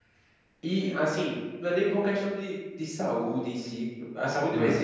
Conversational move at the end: listening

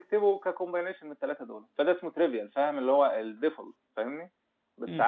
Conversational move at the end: listening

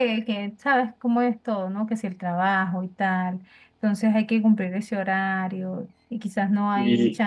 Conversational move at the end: listening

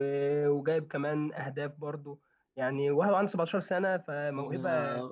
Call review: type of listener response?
taking over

